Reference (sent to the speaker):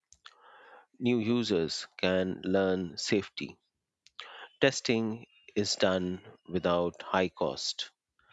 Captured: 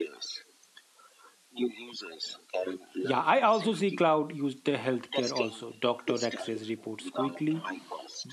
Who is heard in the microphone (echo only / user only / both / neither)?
both